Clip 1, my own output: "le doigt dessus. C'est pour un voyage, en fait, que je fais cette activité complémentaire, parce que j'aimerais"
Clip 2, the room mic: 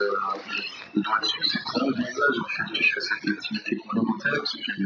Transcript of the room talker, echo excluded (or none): none